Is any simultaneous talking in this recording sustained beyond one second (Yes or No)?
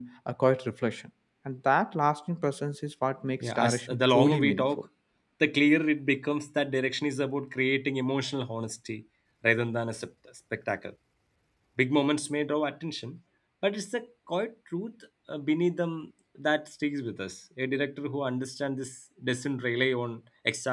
Yes